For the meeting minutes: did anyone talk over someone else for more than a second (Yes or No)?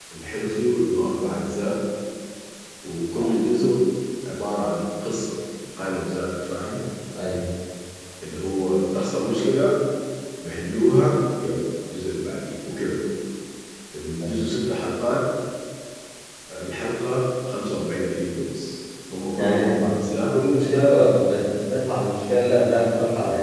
No